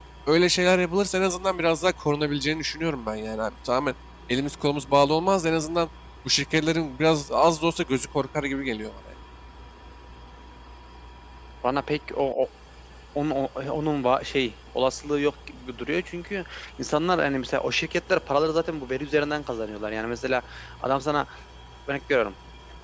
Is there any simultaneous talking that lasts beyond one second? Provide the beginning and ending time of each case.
none

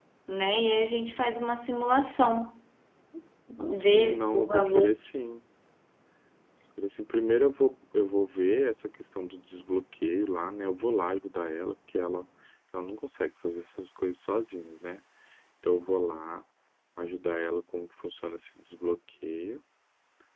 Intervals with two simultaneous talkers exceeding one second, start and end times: 3.6-4.9

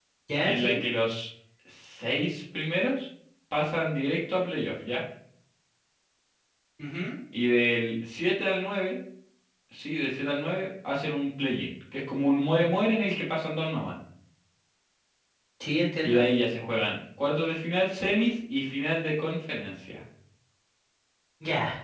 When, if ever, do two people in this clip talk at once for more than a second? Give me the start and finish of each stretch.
none

